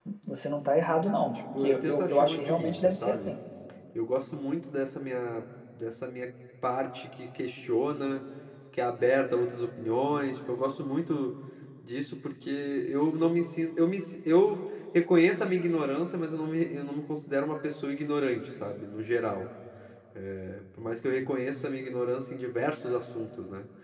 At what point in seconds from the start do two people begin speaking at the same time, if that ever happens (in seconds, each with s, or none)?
1.6 s